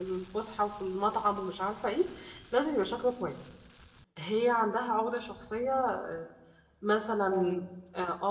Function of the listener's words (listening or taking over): listening